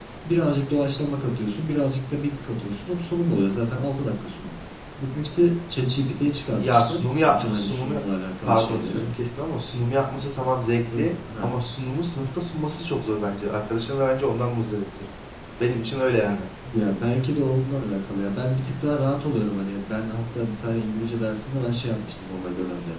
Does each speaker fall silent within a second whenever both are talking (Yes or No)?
No